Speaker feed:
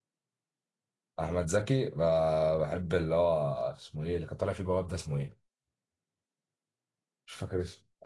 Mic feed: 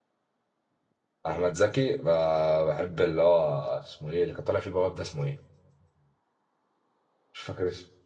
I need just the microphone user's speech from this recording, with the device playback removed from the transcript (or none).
none